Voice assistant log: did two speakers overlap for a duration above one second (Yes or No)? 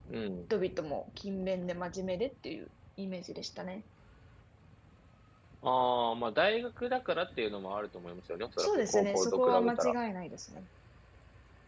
Yes